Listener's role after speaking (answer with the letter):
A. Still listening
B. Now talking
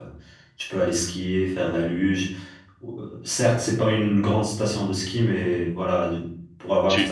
A